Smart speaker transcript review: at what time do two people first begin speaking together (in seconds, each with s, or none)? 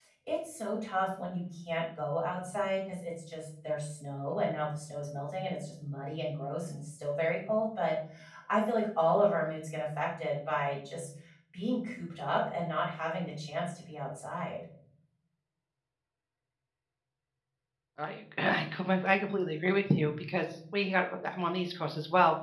none